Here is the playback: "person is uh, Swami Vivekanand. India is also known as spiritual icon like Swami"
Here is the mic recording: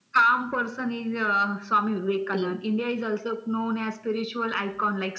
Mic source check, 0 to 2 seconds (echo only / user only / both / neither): echo only